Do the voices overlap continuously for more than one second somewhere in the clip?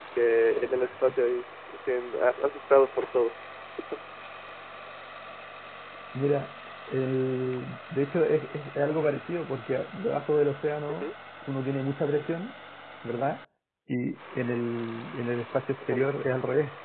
No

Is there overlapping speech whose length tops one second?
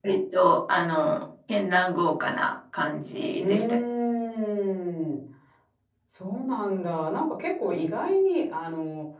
No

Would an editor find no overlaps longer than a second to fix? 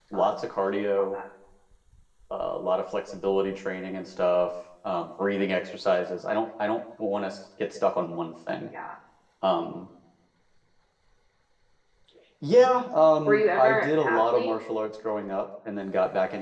No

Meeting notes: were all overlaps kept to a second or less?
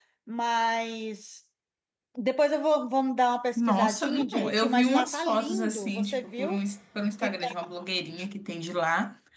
No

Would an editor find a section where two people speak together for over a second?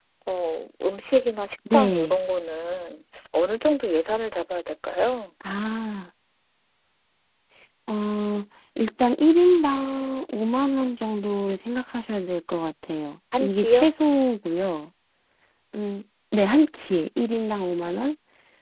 No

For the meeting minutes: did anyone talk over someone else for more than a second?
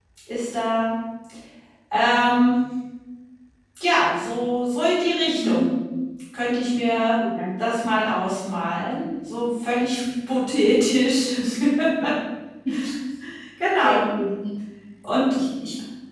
No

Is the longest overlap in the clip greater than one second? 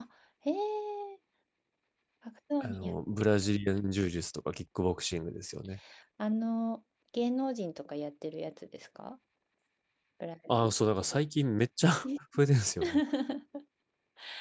No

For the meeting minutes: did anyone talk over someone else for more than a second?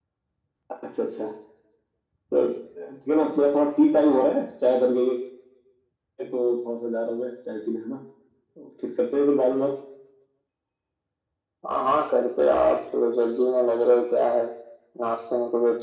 No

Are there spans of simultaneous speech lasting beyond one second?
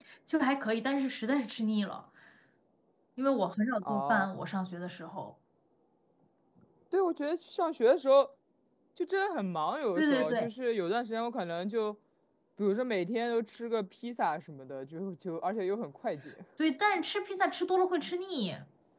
No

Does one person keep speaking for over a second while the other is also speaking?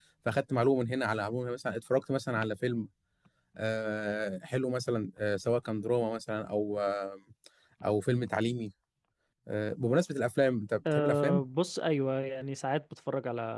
No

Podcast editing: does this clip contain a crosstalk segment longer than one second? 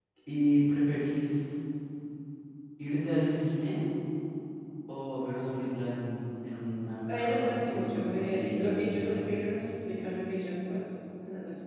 Yes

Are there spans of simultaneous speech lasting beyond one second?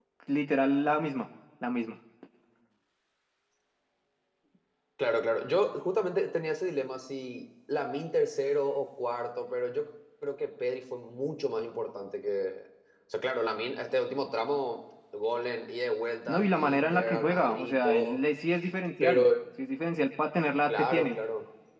Yes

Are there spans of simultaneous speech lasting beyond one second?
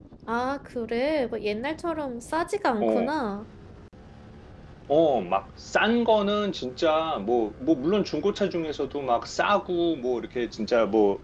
No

